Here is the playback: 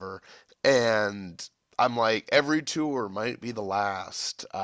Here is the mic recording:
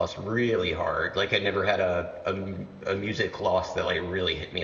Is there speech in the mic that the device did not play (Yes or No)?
Yes